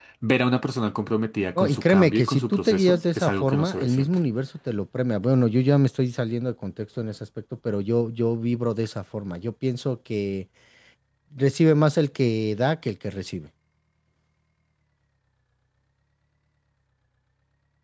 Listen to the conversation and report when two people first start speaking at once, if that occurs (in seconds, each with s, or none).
1.6 s